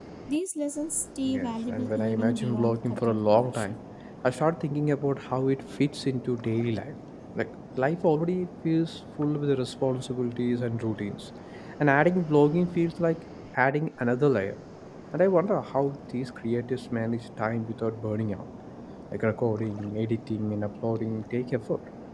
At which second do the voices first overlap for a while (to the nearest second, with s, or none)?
1 s